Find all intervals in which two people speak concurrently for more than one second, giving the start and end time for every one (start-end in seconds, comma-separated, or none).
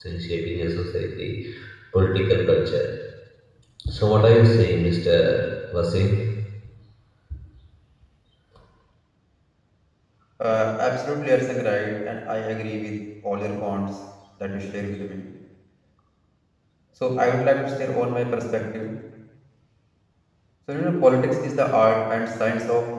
none